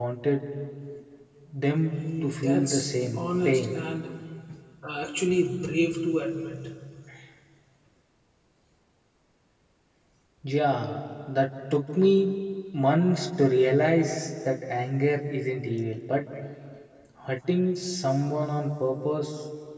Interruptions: present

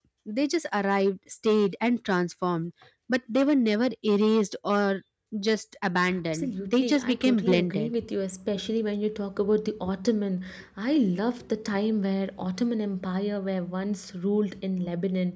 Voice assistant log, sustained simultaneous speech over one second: present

